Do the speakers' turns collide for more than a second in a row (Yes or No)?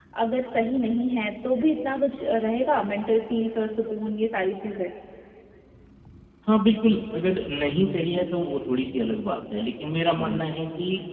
No